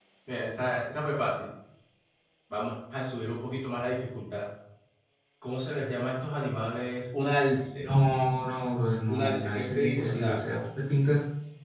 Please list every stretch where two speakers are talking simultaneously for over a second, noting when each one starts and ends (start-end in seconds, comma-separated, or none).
9.1-10.4